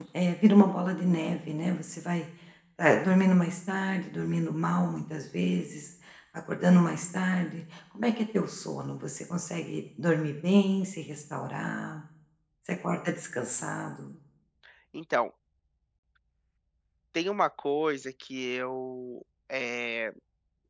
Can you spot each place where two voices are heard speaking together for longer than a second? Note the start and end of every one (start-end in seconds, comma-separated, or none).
none